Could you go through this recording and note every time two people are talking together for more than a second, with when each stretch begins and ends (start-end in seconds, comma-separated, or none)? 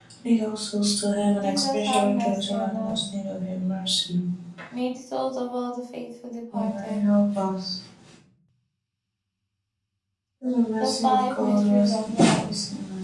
1.4-3.0, 10.8-12.5